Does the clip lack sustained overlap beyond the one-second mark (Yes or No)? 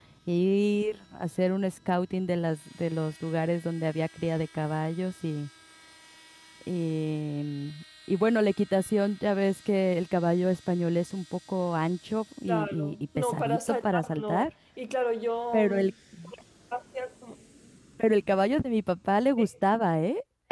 No